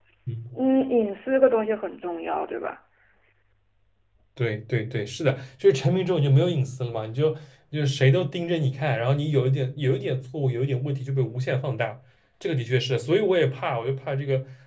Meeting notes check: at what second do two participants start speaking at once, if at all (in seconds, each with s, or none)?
none